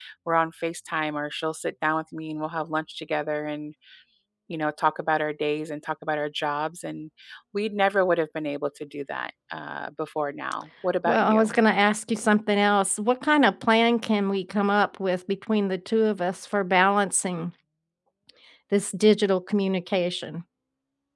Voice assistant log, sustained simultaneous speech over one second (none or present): none